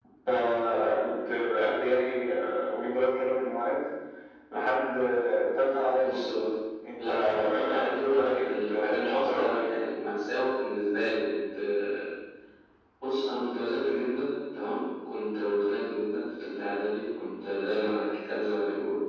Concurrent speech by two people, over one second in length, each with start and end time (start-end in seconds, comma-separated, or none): 7.0-9.7